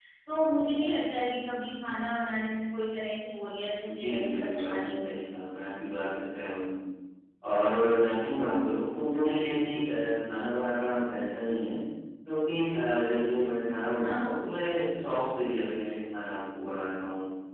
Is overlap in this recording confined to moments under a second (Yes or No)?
No